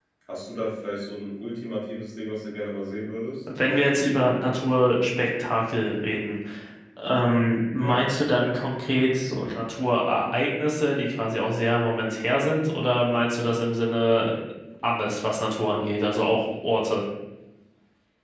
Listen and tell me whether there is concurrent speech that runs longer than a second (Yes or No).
No